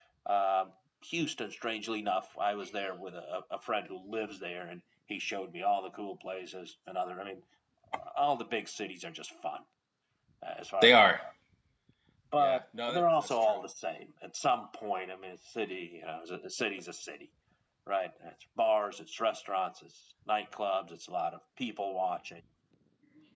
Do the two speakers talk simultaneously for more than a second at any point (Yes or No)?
Yes